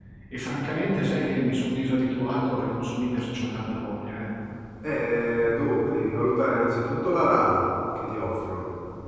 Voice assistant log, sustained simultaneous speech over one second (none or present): none